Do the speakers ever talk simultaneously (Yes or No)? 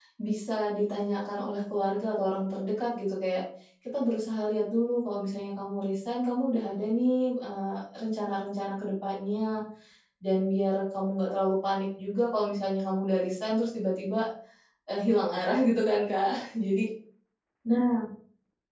No